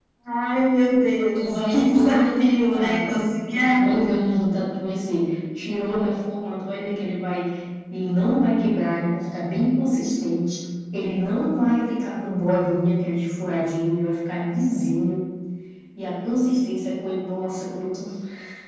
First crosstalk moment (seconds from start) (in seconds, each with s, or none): 1.4 s